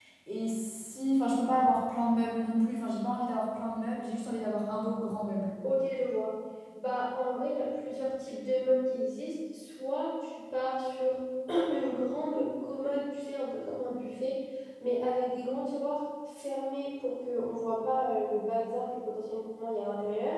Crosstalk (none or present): none